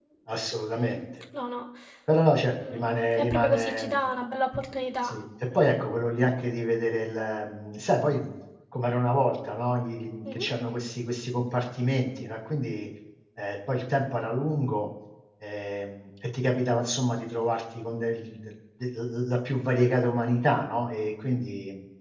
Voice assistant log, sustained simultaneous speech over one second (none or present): present